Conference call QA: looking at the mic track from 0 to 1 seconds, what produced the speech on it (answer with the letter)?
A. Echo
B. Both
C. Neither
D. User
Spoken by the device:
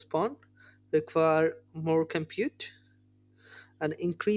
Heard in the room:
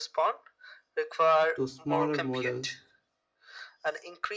A